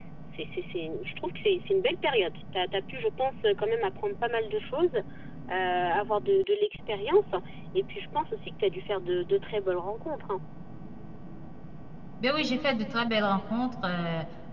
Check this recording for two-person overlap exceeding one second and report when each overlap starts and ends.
none

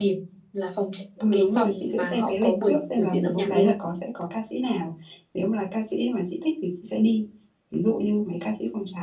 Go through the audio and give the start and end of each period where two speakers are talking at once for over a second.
1.3-3.7

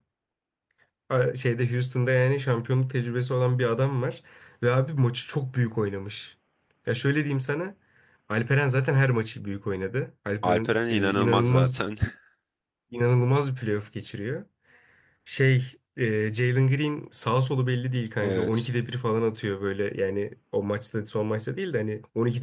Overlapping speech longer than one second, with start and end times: 10.4-11.8

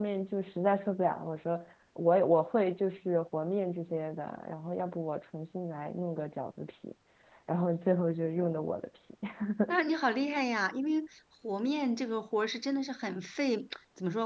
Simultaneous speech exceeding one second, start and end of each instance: none

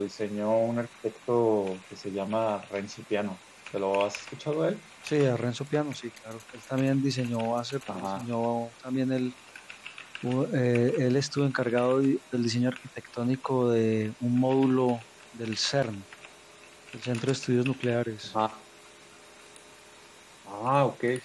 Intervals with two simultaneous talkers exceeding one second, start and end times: none

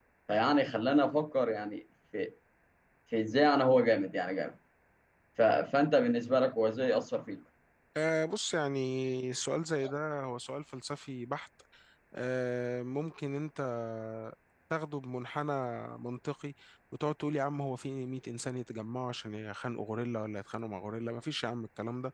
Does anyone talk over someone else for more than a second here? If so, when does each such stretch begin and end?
none

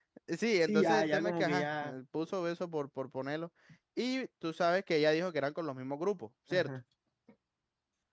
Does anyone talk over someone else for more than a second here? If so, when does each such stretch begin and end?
0.6-1.9

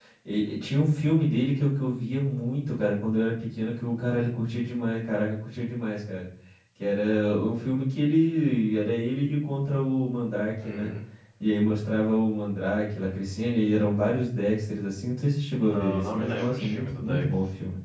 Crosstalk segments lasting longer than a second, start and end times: 15.6-17.2

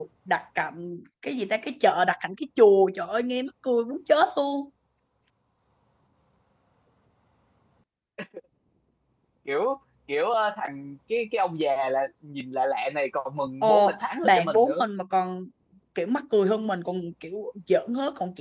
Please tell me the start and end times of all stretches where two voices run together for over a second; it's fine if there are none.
13.6-14.8

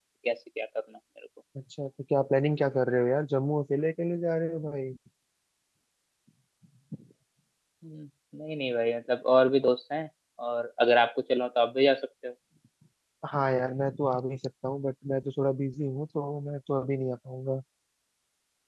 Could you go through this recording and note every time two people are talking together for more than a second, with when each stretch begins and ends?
none

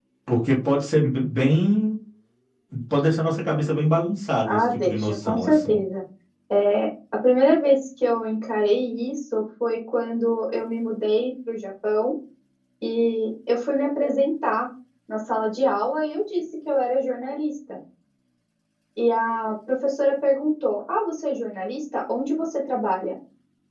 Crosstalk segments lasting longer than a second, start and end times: 4.5-5.8

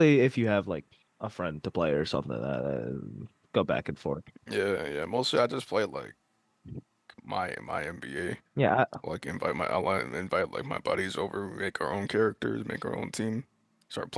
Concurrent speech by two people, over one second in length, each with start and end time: none

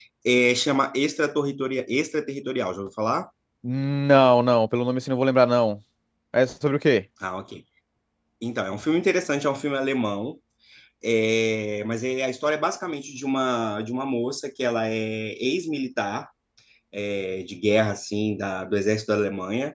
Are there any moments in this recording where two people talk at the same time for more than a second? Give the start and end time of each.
none

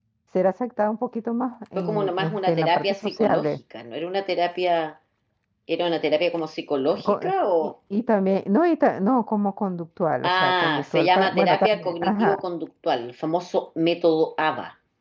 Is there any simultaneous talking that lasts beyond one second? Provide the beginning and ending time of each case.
1.8-3.5, 10.2-12.3

